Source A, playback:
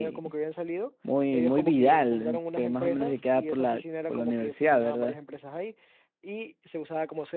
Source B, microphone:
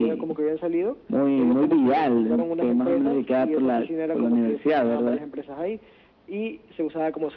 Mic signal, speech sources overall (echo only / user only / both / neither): echo only